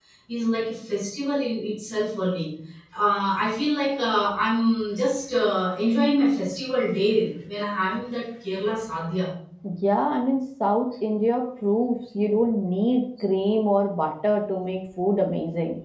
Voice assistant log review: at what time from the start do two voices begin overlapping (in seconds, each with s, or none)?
none